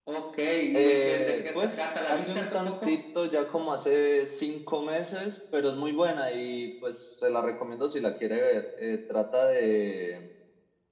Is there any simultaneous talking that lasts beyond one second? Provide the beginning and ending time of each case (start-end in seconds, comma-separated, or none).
0.7-3.0